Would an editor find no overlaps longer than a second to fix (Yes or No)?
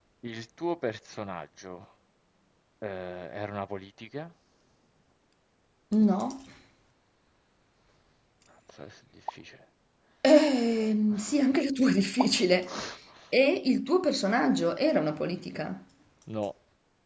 Yes